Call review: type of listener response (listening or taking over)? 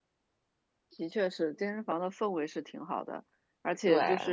listening